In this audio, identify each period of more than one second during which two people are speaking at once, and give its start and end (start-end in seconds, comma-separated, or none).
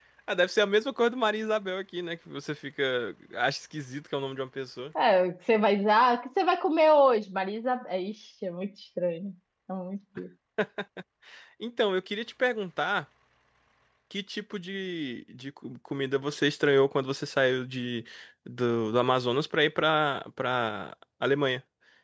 none